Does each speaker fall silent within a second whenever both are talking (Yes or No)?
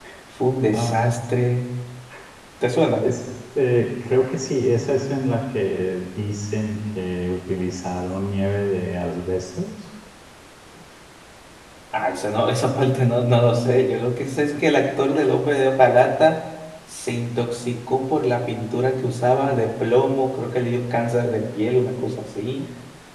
Yes